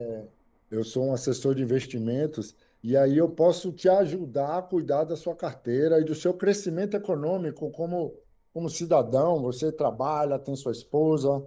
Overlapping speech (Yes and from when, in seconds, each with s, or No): No